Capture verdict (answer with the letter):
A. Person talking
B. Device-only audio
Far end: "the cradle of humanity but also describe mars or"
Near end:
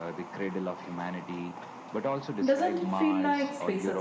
A